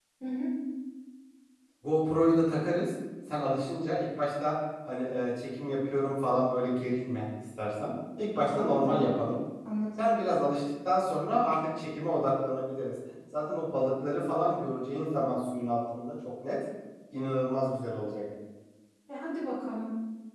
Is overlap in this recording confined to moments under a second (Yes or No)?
Yes